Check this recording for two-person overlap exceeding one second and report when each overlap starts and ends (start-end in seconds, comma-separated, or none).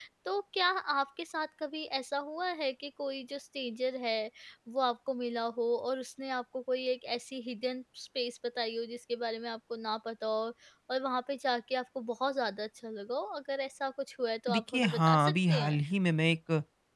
14.5-15.8